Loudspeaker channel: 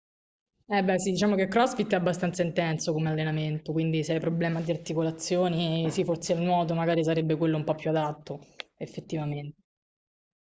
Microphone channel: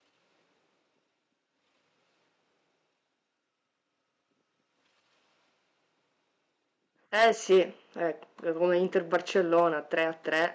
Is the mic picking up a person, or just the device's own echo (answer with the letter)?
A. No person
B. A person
B